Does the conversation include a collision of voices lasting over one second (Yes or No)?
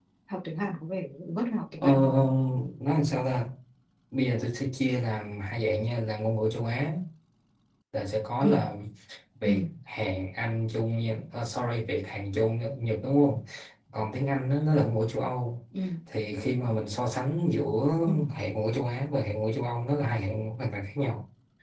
No